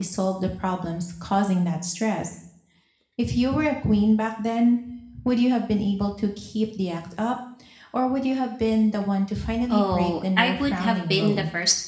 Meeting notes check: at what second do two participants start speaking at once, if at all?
9.7 s

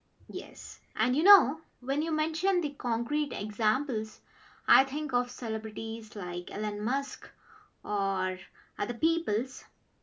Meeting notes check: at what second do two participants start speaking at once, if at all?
none

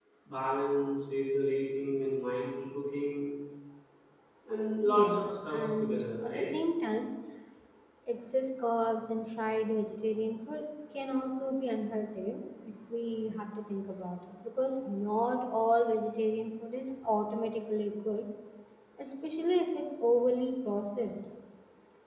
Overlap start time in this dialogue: 4.8 s

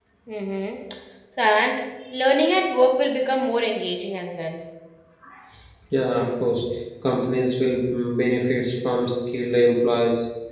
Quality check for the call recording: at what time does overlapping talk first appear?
none

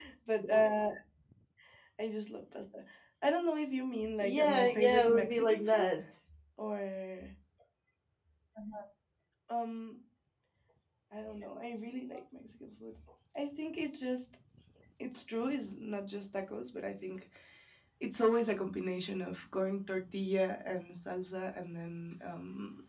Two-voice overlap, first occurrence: 4.2 s

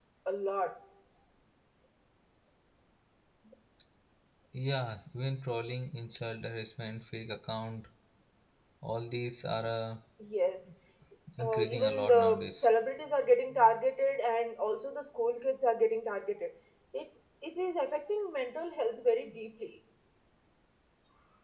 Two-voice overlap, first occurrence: 11.4 s

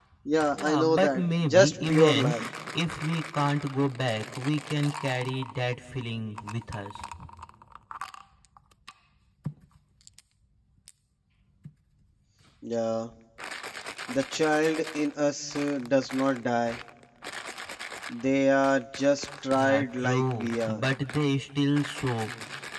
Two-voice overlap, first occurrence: 0.6 s

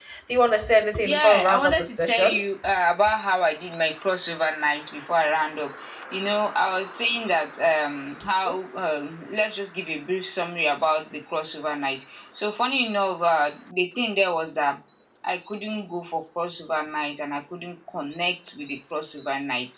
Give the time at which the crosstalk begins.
1.1 s

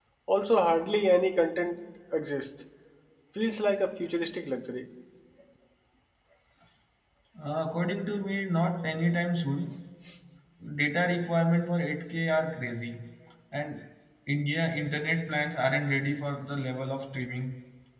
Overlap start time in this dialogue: none

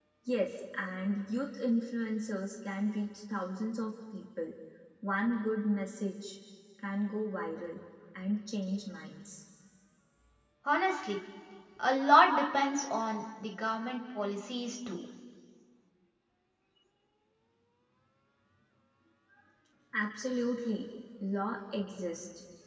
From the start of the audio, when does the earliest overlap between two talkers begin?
none

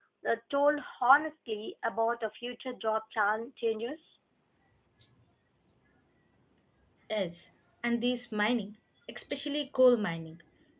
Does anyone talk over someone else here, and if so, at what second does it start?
none

